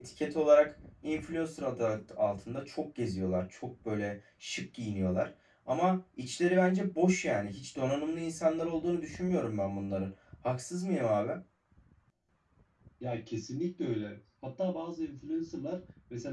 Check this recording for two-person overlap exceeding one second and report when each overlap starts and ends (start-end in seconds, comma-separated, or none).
none